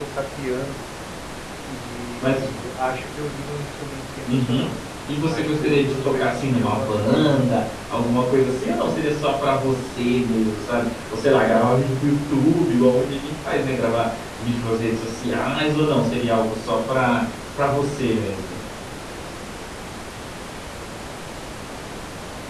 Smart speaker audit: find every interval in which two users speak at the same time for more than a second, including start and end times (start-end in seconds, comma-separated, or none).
5.3-7.4